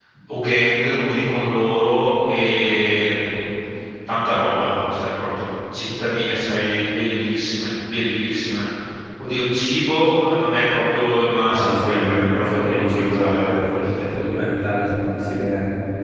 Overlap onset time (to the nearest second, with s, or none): 12 s